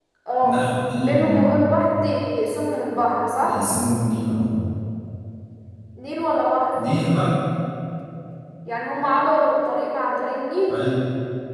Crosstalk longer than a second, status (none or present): none